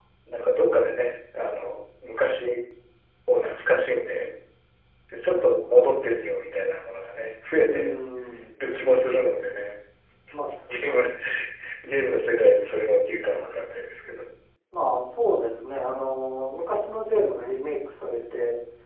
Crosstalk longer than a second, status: none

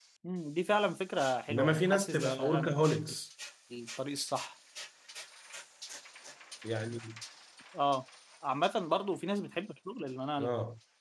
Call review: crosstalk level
present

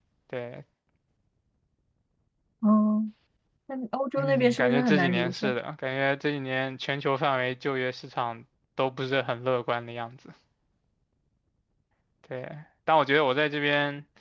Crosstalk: present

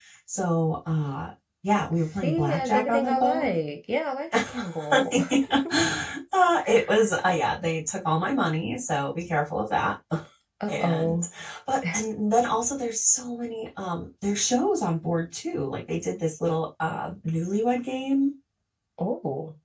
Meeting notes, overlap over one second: present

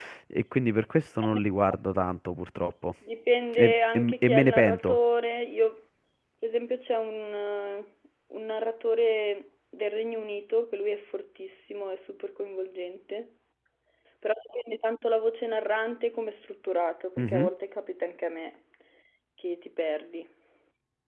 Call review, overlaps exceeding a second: present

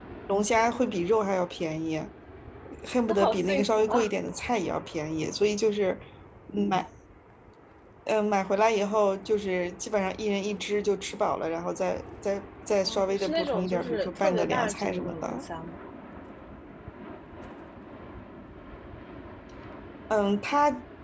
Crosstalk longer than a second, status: present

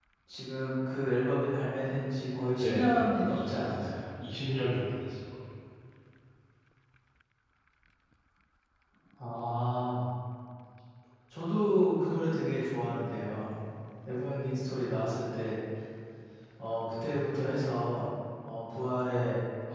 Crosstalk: present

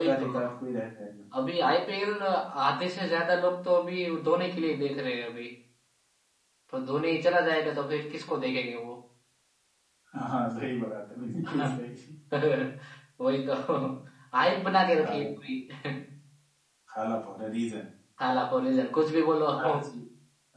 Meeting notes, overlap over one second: none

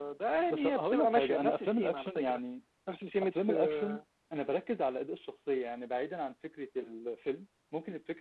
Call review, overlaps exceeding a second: present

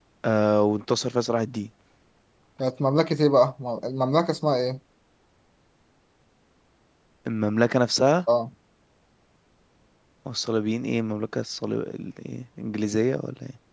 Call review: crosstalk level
none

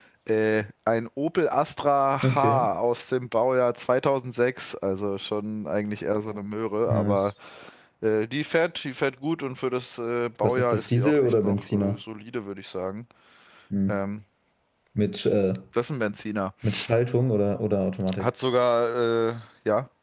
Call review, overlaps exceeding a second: present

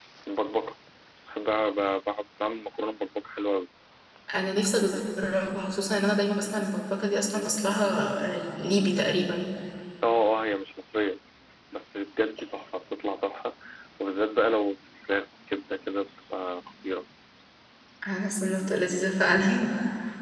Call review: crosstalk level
none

